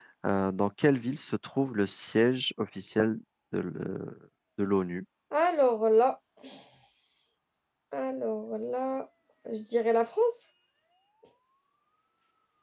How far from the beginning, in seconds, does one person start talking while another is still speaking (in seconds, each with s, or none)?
none